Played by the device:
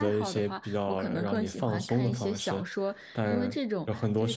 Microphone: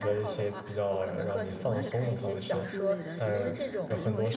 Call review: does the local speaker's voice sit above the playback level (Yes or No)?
No